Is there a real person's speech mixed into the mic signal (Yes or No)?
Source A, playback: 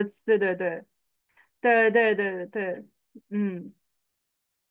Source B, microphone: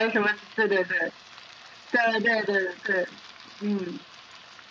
No